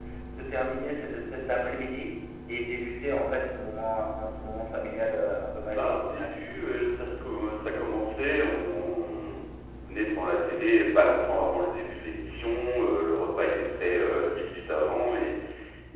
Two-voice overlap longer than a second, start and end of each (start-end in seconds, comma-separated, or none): none